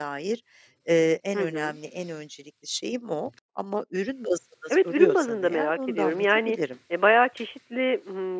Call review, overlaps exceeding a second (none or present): present